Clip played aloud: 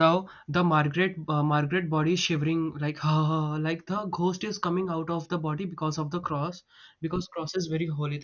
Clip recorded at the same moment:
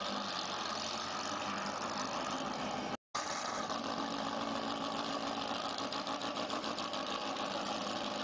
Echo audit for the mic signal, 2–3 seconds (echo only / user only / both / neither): neither